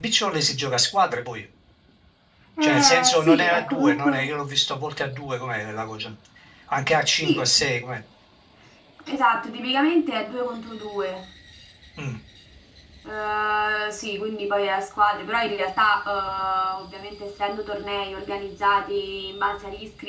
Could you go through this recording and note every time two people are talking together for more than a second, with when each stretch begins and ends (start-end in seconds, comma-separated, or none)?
2.6-4.3